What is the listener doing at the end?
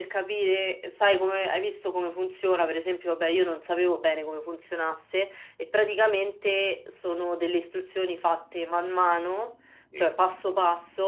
listening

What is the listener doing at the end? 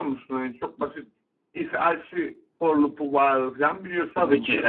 taking over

